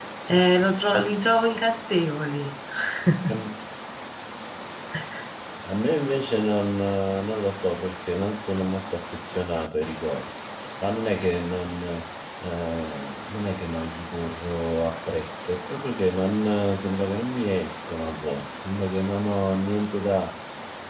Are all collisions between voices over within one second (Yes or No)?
Yes